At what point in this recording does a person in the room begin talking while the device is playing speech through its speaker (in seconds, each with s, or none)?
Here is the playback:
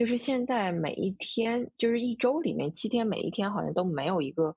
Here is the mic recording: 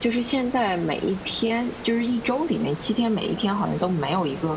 none